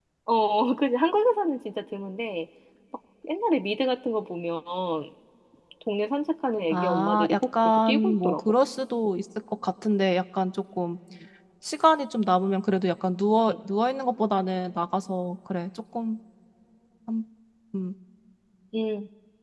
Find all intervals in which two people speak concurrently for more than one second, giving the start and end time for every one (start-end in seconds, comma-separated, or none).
6.7-8.4